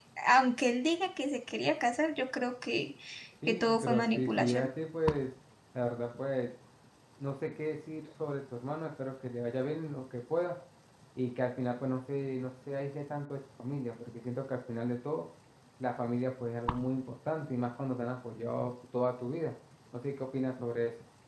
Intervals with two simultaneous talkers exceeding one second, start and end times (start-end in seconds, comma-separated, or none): 3.5-4.7